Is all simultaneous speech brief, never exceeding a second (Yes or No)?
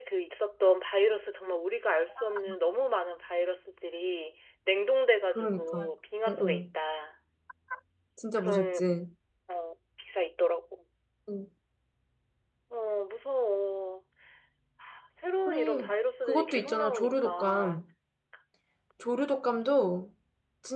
No